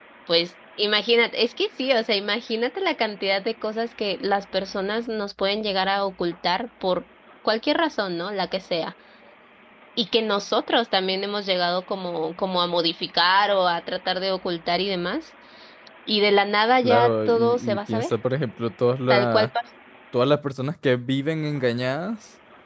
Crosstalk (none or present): present